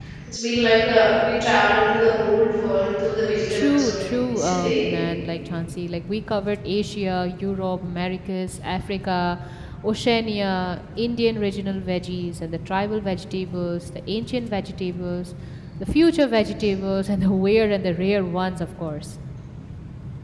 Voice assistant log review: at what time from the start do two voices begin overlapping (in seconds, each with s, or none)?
3.5 s